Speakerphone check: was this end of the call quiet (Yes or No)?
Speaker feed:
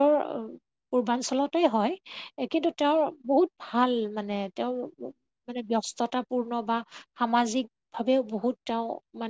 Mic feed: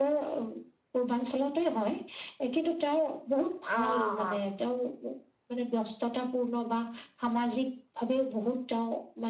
No